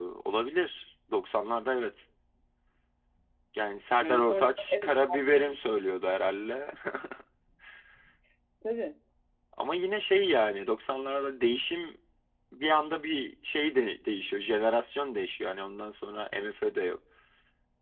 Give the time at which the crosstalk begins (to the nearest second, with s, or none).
4 s